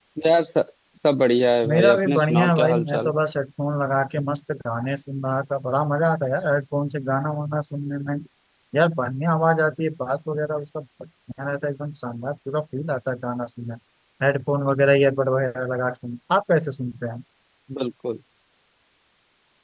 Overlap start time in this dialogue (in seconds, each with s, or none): 1.6 s